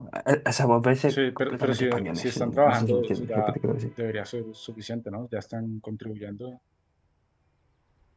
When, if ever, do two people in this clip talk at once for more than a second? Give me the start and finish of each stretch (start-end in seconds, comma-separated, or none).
1.1-3.6